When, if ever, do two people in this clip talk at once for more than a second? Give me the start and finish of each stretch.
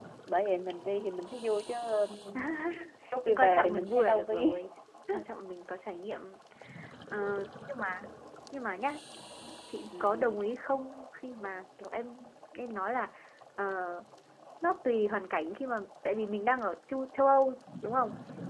3.3-4.6

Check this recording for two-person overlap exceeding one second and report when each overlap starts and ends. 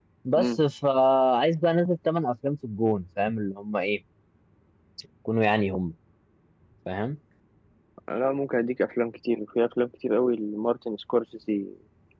none

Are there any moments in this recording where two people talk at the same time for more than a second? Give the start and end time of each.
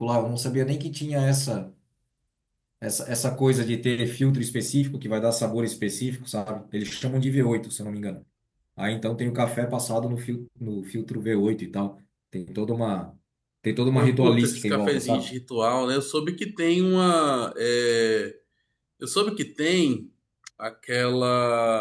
14.0-15.3

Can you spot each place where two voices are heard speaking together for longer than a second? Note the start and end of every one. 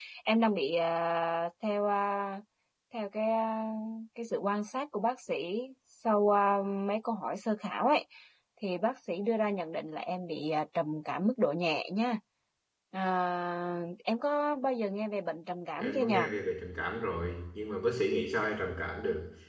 none

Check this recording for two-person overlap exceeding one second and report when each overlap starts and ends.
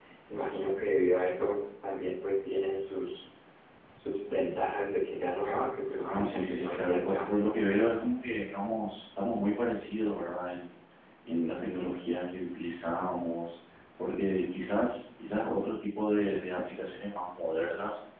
6.0-7.3

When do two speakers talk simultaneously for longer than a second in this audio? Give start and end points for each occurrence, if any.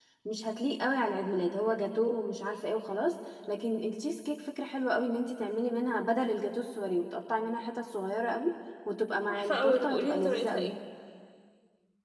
9.3-10.7

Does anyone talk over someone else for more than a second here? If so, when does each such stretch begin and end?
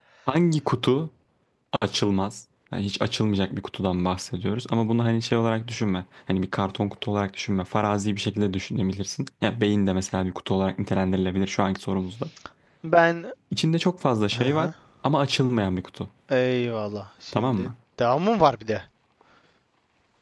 none

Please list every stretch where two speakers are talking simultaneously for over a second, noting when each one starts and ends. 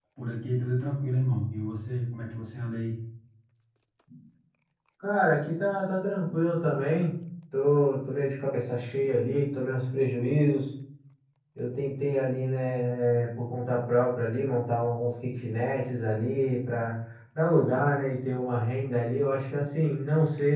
none

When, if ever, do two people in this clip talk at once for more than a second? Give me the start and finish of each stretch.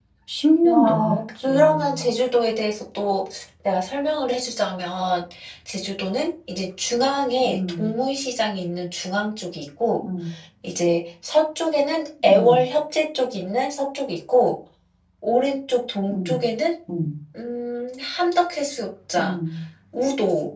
0.6-2.0

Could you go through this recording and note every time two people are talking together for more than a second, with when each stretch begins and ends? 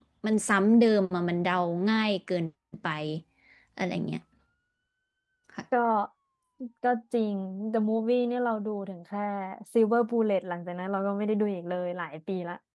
none

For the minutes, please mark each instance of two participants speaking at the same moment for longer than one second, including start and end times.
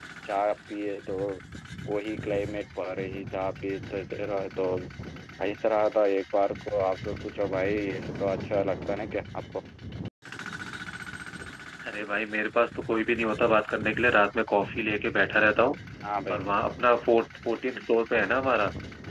none

